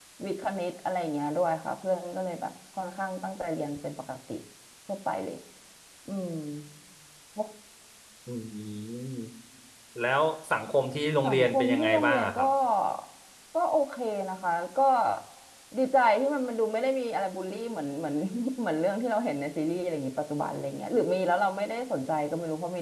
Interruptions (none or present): present